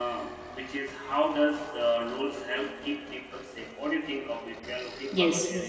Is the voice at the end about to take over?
Yes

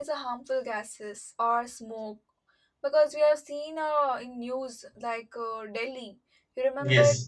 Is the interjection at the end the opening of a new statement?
No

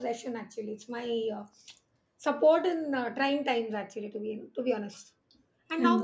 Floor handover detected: No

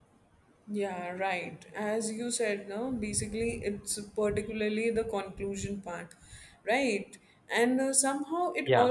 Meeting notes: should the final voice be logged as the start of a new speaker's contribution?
No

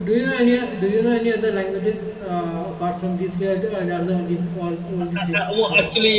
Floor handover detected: Yes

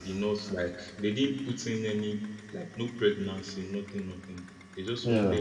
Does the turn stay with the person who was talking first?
Yes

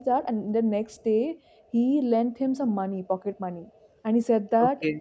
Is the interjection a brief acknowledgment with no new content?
Yes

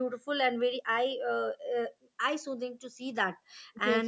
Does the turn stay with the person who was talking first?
No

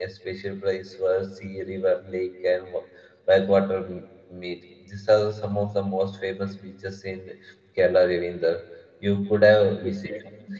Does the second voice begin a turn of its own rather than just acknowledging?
Yes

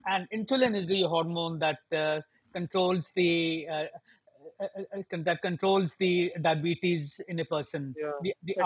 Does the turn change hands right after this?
Yes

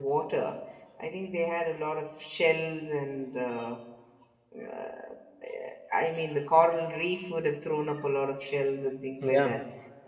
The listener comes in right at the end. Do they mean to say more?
No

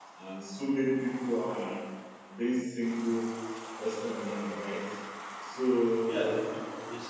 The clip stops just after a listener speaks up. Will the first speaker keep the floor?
No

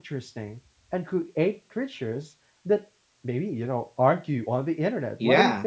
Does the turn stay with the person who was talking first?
No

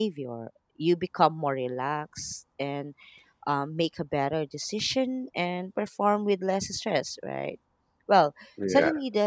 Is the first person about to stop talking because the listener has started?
No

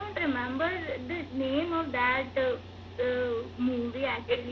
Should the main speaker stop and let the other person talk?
Yes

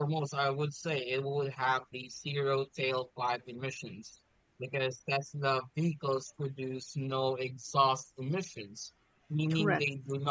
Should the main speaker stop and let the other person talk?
No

